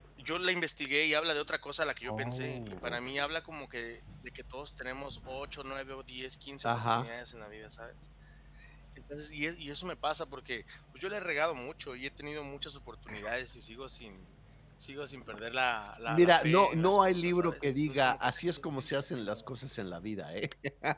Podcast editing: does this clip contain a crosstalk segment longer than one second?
Yes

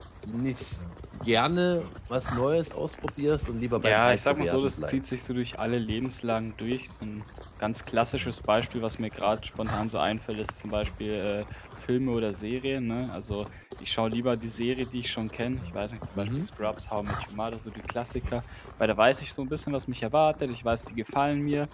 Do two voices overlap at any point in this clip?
Yes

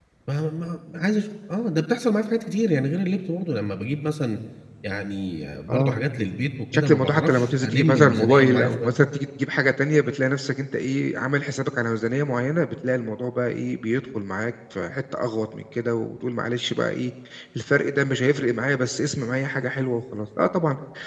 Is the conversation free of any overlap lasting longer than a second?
No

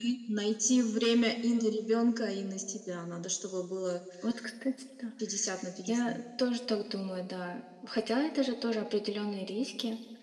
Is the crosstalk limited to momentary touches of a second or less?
Yes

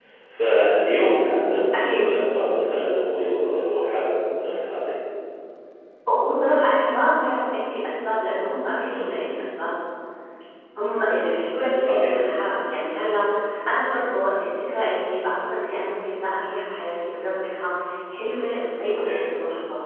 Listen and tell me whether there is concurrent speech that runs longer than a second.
No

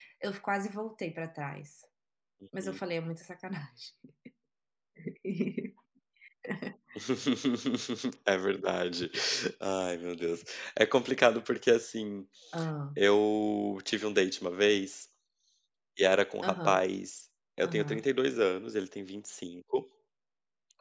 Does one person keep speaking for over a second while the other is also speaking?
No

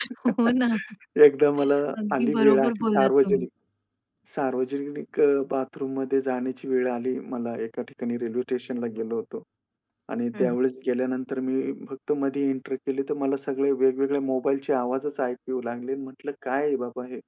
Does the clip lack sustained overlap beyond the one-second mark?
No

